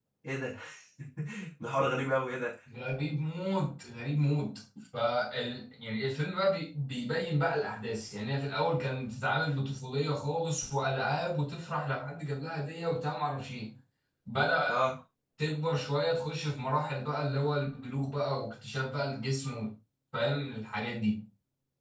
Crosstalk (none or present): none